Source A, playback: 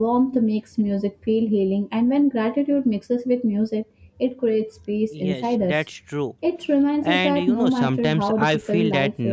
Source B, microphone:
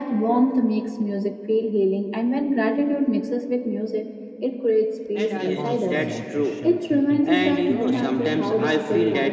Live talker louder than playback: No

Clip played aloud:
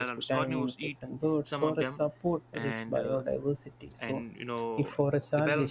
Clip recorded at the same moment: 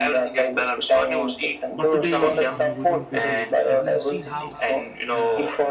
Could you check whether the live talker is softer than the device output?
Yes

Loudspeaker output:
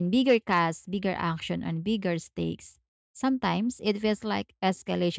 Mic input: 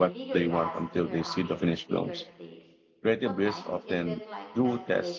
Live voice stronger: Yes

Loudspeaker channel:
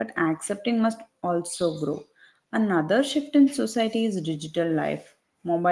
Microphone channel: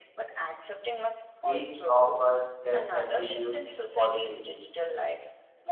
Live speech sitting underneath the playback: No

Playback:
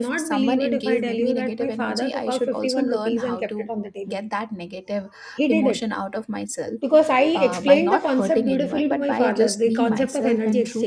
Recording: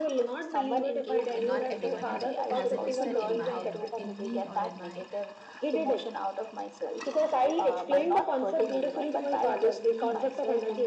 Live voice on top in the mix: No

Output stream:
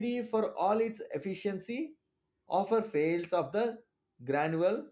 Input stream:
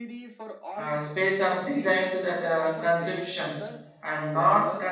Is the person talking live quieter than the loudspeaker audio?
No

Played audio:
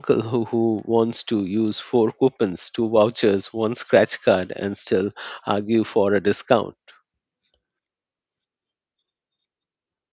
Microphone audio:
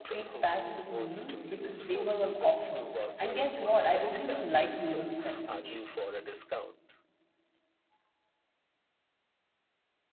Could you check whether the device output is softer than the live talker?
Yes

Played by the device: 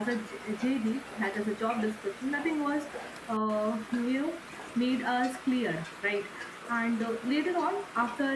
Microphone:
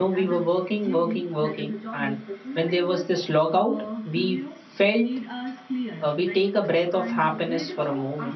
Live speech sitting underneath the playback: No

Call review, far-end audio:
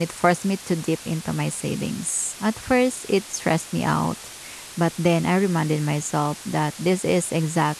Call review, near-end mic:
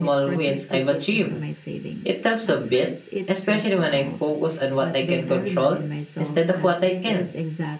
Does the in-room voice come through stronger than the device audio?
Yes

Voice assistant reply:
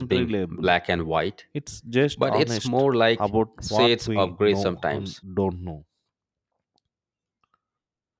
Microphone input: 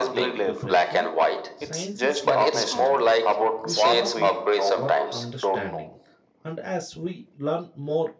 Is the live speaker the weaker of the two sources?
Yes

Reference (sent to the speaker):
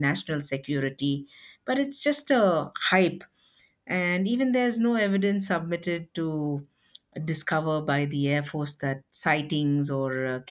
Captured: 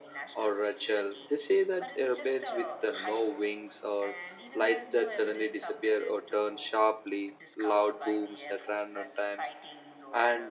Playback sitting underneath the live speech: Yes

